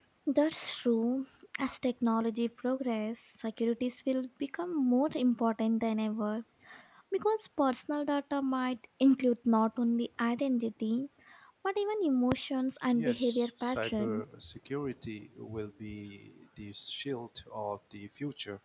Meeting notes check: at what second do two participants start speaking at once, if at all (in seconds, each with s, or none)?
12.9 s